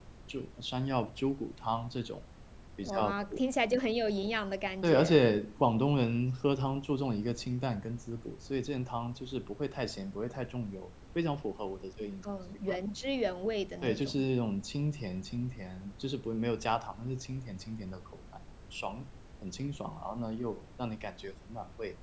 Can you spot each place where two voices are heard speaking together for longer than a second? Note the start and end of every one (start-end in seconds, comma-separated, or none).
none